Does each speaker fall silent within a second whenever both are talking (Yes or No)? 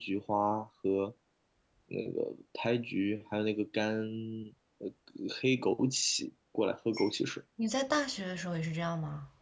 Yes